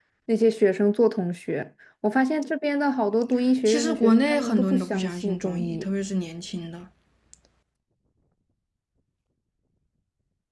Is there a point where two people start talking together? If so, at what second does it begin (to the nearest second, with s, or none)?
4 s